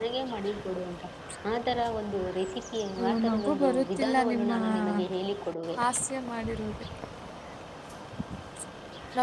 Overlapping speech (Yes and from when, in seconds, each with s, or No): Yes, from 3.0 s